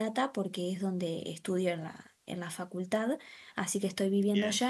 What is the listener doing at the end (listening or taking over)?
listening